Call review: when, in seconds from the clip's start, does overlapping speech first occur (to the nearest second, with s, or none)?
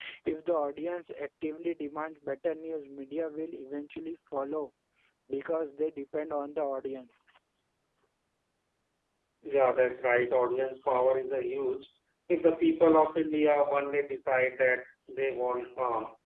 none